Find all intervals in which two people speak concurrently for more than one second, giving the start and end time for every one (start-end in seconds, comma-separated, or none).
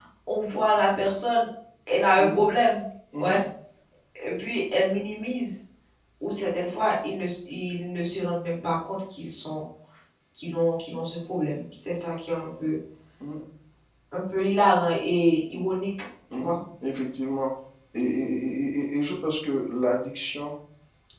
none